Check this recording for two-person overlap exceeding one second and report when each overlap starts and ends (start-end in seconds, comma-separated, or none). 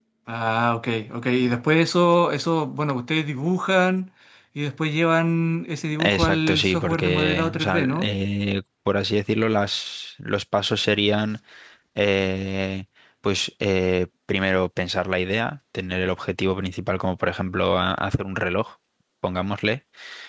6.0-8.1